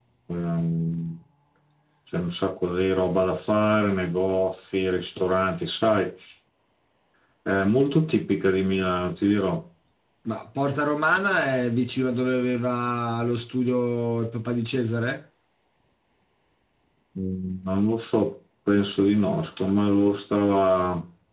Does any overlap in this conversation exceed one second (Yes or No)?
No